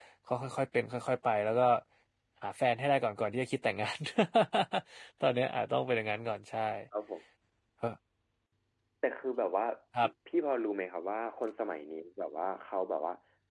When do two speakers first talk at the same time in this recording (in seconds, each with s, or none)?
none